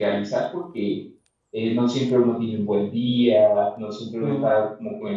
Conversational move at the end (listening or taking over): listening